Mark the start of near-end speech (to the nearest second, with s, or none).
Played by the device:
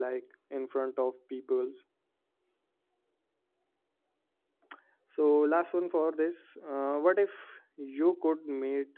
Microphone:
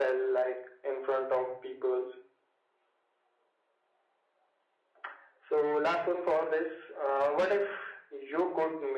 none